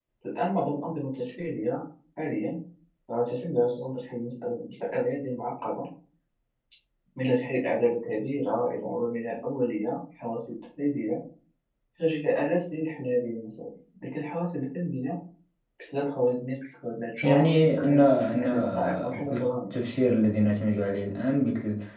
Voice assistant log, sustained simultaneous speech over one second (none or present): present